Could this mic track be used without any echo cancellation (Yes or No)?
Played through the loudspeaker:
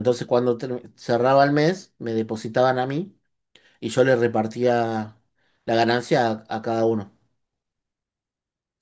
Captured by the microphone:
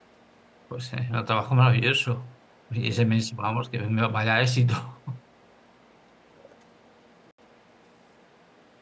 Yes